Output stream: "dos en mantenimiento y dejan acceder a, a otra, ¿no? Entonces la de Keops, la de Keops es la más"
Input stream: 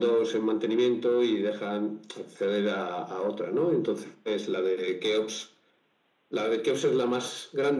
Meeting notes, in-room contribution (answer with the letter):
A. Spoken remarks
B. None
B